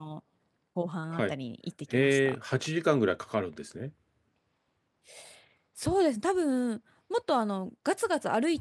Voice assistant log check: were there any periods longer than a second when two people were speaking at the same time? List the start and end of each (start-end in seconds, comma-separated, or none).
none